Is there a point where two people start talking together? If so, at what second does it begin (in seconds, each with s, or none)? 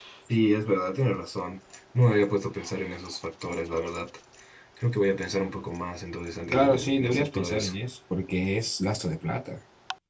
6.5 s